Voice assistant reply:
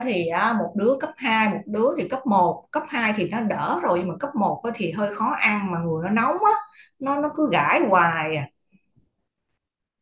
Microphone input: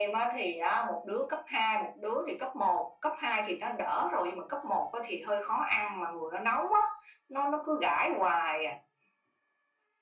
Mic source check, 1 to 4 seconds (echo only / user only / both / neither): echo only